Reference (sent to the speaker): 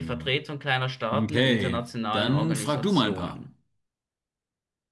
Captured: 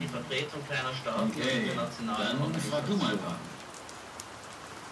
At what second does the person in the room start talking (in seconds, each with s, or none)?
none